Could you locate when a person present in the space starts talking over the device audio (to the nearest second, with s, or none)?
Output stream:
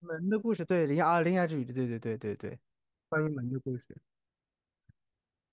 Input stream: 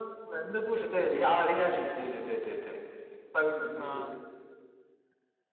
4 s